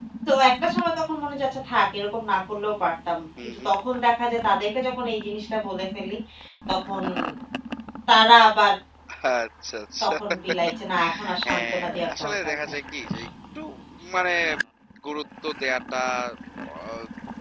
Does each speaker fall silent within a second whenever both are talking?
No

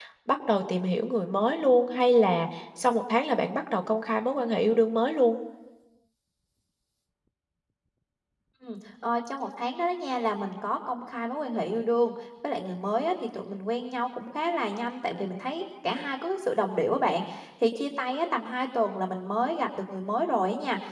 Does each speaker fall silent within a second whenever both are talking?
Yes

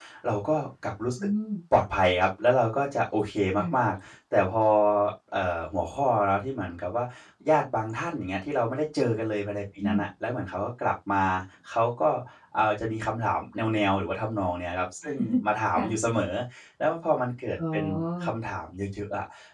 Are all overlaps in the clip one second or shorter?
Yes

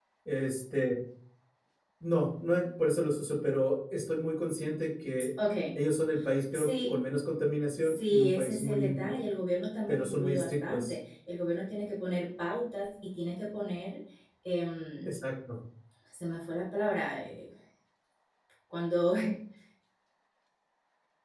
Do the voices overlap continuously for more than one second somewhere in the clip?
Yes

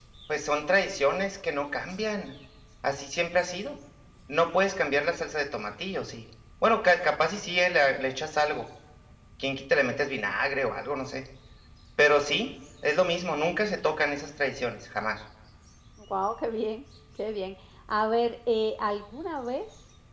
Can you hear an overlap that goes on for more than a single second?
No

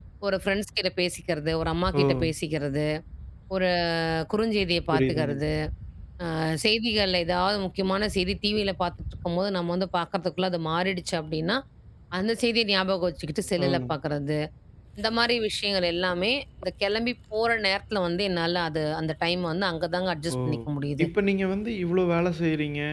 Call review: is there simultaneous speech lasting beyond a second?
No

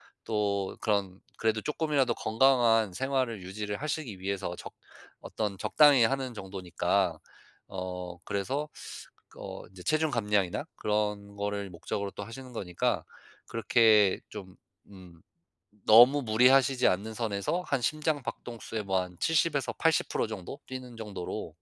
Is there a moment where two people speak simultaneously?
No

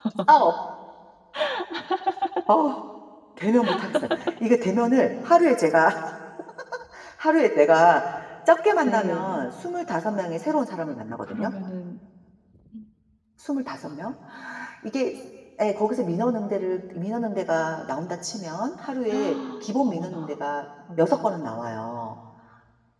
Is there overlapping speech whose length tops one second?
No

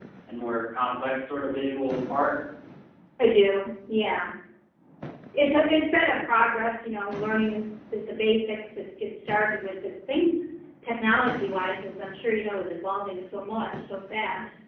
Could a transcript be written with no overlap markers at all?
Yes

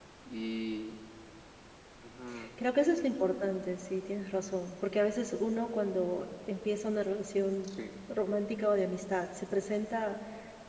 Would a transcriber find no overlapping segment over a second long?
Yes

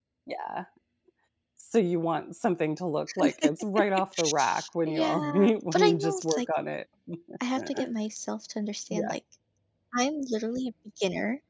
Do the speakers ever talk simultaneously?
Yes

